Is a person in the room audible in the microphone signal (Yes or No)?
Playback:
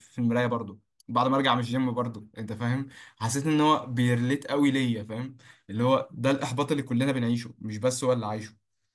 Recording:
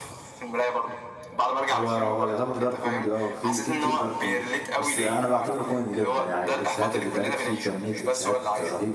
Yes